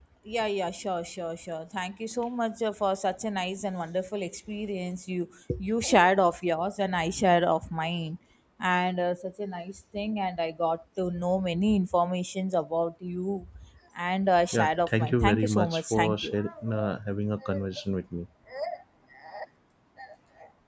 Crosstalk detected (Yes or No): Yes